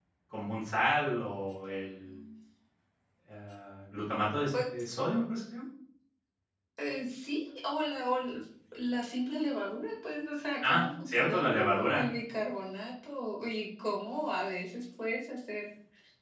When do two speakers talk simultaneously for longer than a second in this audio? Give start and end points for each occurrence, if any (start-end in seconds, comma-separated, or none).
10.6-12.1